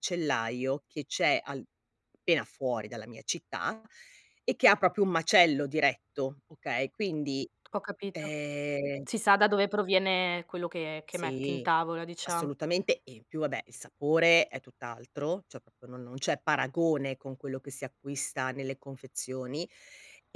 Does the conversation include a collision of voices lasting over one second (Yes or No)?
No